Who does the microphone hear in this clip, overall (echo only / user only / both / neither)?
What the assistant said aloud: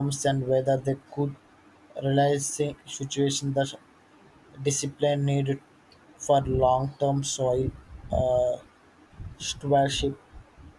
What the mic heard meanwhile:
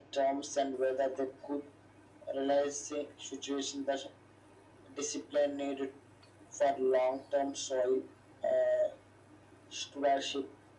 echo only